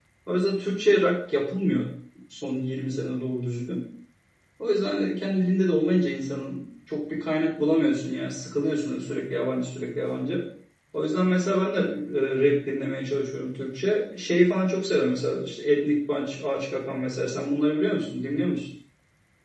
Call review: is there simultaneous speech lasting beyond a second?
No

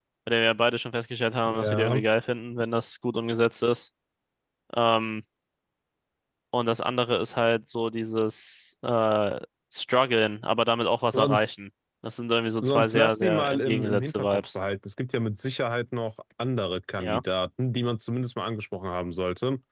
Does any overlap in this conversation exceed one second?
Yes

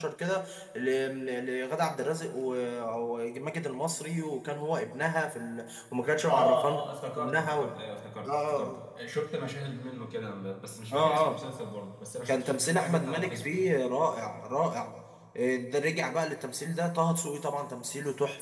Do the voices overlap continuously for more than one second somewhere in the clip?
Yes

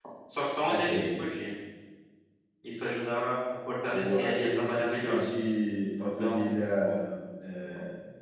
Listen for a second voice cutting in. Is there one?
Yes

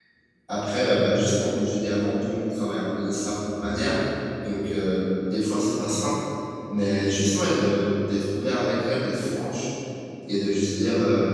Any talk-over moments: No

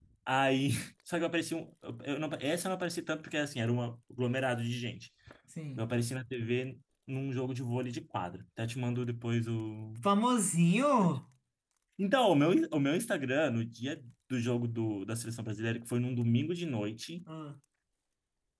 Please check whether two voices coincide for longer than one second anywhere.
No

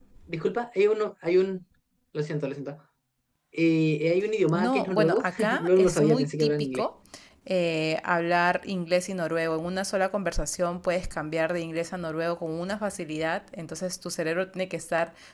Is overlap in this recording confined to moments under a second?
No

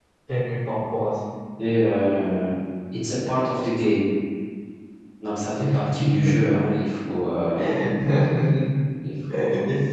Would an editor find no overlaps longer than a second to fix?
Yes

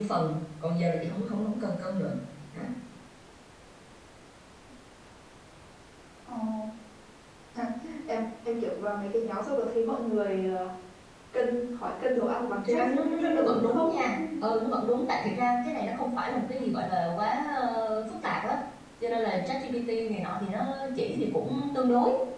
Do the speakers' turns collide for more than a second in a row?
Yes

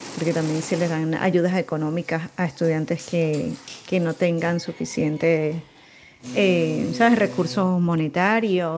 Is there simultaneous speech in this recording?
No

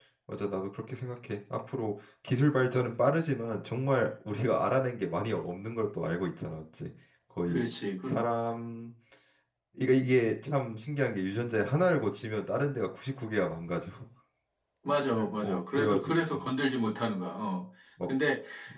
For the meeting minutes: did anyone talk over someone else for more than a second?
Yes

